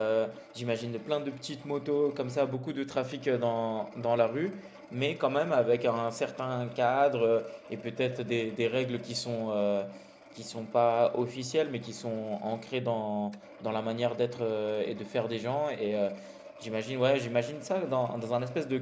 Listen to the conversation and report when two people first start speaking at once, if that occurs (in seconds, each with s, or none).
none